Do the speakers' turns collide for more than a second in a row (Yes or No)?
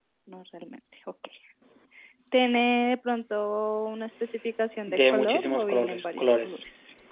Yes